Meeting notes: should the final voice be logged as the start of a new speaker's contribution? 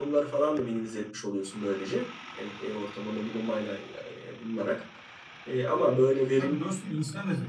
Yes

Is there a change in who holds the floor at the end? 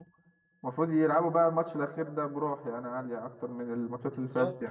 Yes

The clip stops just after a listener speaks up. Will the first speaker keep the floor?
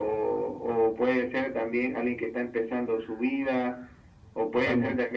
Yes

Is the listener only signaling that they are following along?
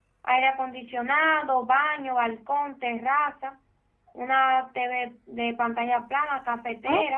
No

